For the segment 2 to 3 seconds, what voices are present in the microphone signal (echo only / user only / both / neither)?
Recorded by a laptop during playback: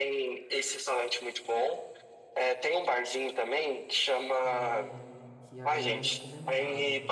echo only